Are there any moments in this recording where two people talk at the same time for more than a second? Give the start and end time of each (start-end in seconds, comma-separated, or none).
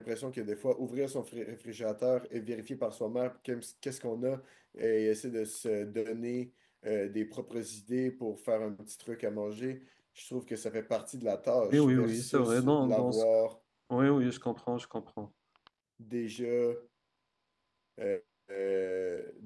11.7-13.2